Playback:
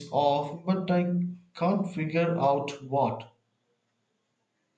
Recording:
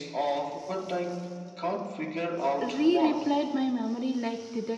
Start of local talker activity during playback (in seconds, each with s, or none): 2.6 s